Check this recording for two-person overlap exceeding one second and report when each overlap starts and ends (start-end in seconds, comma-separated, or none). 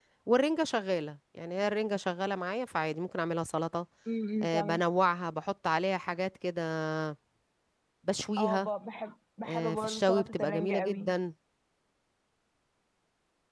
9.4-11.1